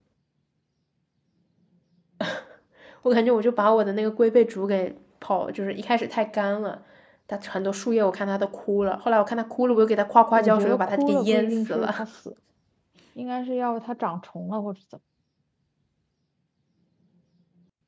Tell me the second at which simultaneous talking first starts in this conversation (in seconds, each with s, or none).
10.3 s